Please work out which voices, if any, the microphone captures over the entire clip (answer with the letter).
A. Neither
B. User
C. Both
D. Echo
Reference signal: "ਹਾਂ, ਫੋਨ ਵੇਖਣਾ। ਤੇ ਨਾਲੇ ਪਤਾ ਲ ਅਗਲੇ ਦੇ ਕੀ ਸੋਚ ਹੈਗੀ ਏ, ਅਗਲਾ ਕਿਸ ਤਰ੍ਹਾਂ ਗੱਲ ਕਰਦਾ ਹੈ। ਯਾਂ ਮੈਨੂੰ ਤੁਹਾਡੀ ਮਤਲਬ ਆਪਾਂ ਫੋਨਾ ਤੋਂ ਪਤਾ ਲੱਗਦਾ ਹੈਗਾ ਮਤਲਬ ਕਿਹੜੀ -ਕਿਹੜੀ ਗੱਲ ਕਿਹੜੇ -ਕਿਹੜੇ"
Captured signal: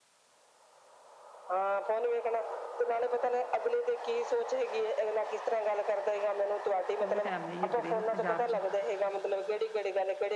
C